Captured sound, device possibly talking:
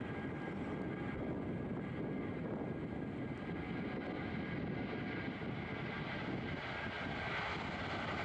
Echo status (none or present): none